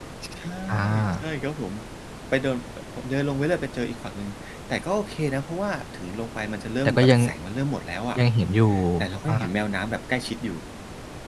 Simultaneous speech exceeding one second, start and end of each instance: none

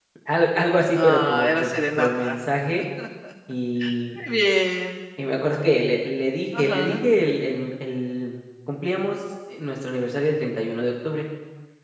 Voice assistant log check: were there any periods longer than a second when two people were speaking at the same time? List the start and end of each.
0.9-2.4

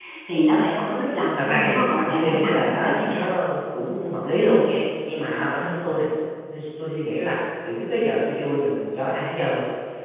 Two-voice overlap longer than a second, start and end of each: 1.4-3.2

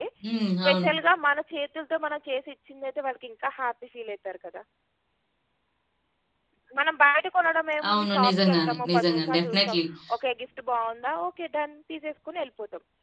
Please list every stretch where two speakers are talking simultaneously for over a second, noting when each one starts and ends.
7.9-9.8

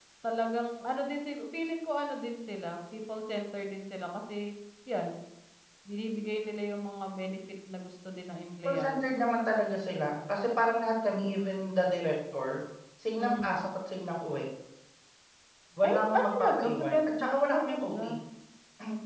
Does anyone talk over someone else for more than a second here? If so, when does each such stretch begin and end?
15.8-17.9

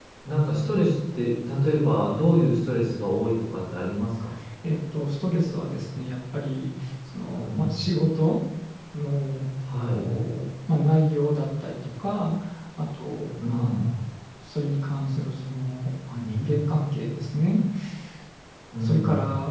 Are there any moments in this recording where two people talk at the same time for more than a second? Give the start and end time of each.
none

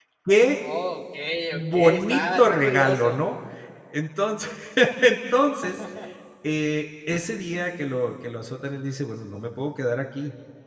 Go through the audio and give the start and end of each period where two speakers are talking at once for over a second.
1.5-3.2

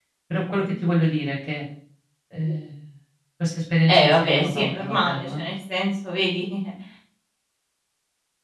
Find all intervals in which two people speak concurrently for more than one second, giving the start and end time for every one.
3.9-5.4

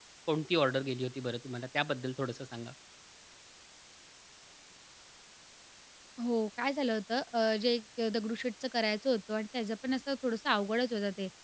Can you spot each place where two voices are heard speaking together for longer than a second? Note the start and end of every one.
none

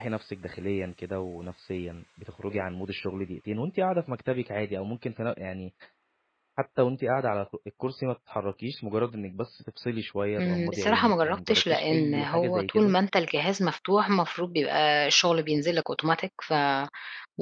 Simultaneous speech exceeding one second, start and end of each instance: 10.4-12.9

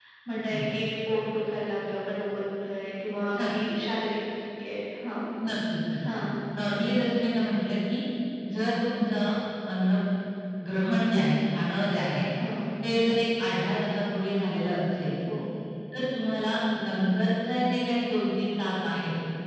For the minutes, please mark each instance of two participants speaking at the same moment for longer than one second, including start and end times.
none

